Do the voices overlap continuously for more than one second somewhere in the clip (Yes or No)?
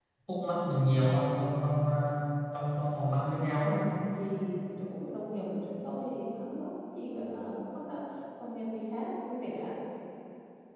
No